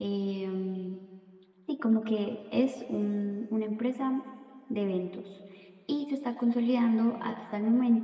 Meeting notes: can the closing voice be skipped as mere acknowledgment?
Yes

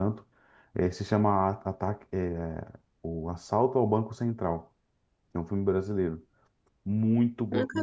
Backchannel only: Yes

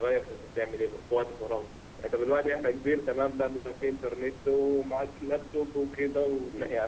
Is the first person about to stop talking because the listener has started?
No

